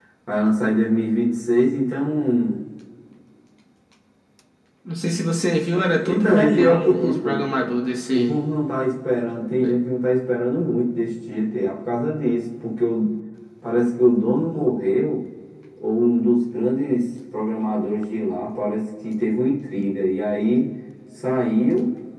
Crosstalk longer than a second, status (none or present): present